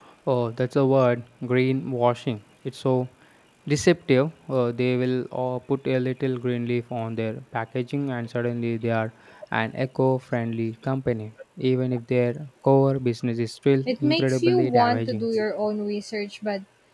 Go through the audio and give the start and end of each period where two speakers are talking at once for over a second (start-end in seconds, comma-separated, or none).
13.9-15.3